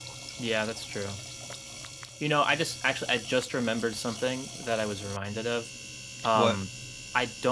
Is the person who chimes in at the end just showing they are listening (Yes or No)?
Yes